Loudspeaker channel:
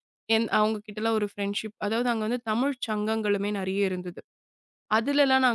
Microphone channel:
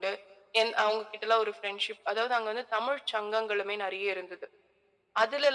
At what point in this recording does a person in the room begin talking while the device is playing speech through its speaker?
none

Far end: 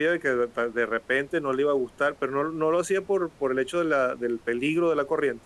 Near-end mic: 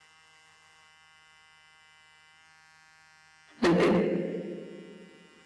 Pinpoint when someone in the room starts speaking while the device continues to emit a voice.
3.6 s

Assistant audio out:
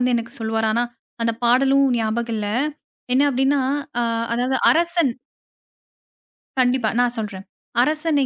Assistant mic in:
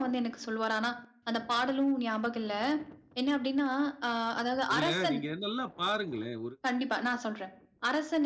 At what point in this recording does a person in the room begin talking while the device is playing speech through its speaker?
4.7 s

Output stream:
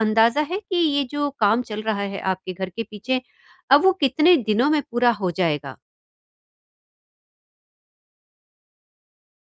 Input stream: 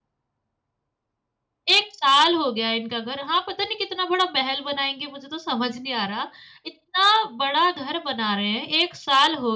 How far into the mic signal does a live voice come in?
1.8 s

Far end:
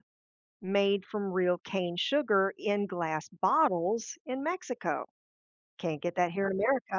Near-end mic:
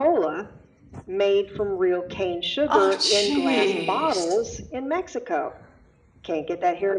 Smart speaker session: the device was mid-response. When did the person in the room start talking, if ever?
2.8 s

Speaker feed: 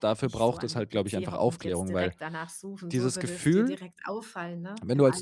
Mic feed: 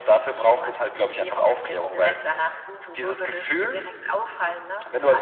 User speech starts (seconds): none

